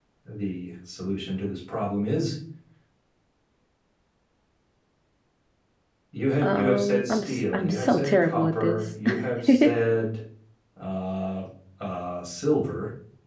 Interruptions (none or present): present